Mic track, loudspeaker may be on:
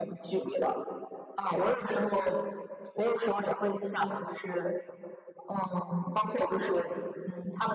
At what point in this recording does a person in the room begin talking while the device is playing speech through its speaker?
none

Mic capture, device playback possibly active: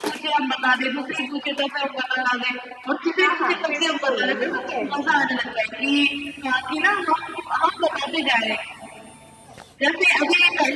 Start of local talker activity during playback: 3.2 s

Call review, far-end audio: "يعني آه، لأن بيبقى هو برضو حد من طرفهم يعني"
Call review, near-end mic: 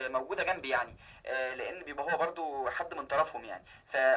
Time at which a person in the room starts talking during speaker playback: none

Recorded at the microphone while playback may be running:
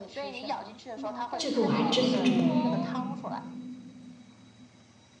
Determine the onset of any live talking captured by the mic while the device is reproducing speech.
1.4 s

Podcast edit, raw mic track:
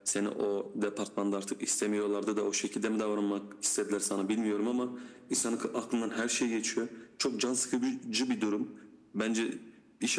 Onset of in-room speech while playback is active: none

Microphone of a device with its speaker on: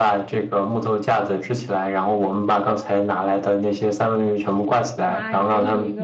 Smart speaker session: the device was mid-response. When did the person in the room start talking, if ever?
5.0 s

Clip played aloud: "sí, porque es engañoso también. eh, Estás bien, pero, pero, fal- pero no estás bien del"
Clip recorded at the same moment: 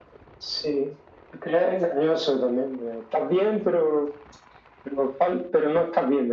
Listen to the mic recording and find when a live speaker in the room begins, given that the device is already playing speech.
none

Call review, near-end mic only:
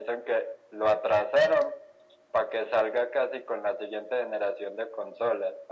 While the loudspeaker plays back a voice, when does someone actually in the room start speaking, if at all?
none

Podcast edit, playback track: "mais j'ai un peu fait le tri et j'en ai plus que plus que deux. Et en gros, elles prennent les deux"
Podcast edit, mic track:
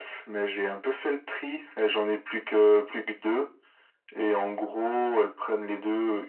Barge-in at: none

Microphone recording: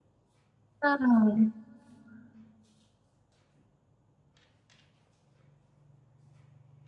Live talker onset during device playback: 0.8 s

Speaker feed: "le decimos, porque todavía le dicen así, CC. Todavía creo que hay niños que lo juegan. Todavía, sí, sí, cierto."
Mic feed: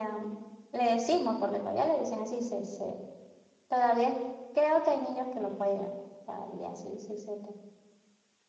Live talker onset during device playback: none

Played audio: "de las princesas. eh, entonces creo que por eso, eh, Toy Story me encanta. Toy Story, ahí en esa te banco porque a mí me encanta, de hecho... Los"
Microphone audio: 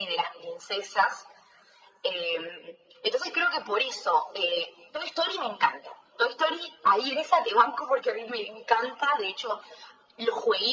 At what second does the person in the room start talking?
none

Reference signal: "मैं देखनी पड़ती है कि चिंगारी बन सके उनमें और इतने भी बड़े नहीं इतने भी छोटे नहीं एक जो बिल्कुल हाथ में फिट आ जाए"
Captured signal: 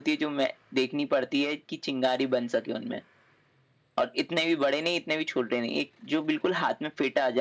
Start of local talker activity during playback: none

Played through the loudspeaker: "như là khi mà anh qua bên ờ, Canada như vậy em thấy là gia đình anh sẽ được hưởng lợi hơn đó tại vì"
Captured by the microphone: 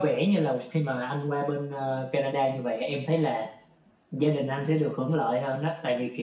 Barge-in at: none

